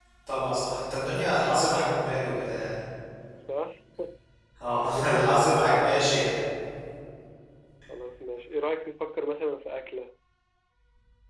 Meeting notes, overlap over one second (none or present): present